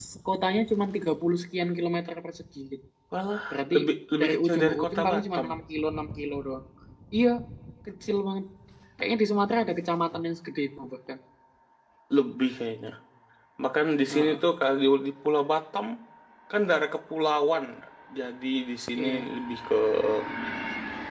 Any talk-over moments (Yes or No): Yes